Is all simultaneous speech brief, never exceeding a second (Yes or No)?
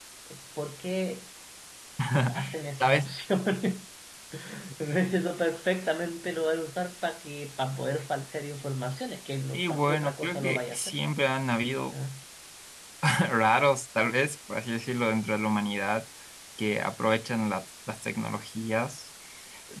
No